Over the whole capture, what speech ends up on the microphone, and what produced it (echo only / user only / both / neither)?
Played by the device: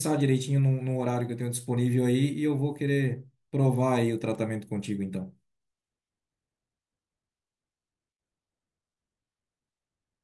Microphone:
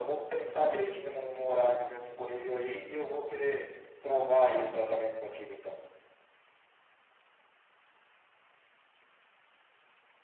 echo only